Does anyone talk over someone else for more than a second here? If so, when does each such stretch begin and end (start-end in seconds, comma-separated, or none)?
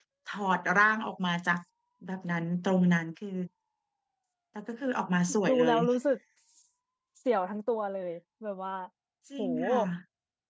none